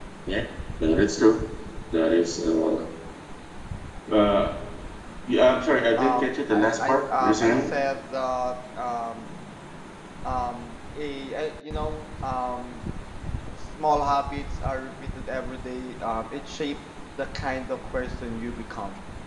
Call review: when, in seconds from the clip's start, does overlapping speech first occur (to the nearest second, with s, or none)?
6 s